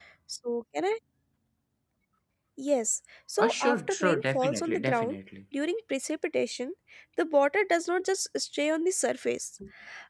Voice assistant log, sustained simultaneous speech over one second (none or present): present